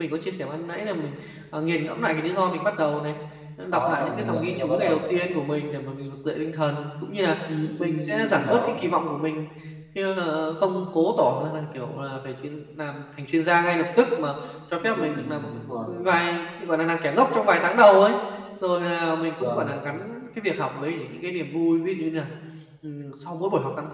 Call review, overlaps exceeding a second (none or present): present